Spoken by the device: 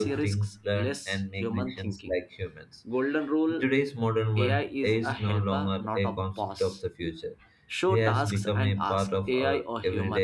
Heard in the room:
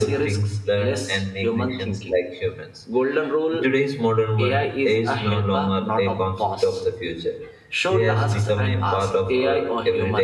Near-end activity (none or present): none